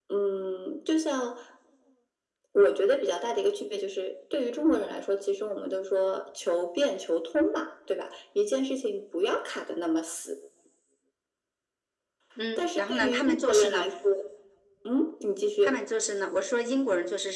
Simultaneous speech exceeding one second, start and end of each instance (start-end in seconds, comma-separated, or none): 12.6-13.9